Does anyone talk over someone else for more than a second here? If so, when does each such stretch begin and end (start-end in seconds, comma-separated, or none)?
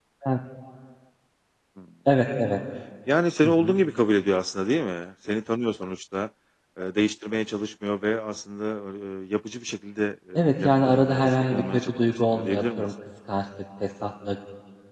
10.3-12.8